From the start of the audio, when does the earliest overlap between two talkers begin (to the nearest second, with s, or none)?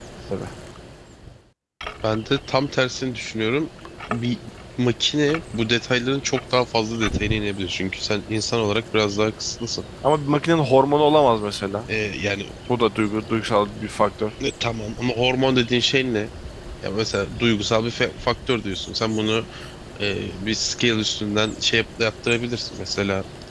none